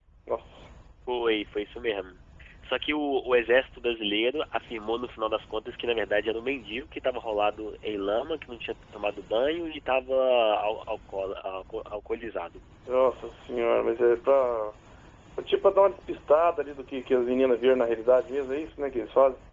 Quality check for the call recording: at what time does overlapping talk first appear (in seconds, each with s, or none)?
none